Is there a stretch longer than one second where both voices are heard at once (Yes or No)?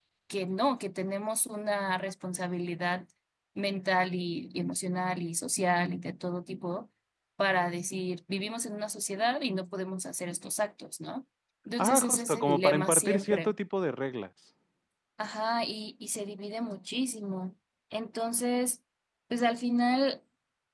Yes